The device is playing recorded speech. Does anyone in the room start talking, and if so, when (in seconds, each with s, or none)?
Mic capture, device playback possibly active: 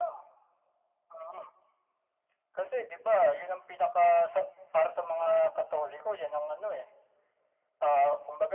none